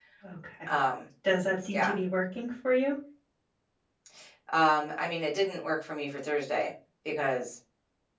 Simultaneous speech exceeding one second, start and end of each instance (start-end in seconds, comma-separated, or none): none